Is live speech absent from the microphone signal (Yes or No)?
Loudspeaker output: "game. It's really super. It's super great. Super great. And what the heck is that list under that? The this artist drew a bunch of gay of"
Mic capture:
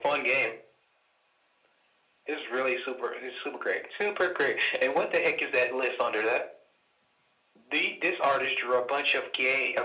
Yes